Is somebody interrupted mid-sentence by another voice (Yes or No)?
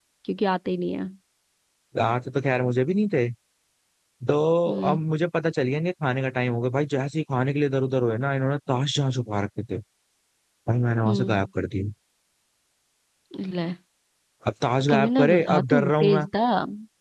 Yes